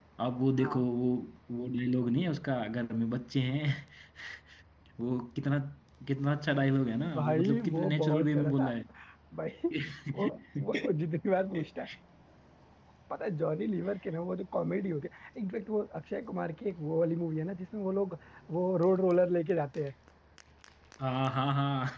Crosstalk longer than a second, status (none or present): present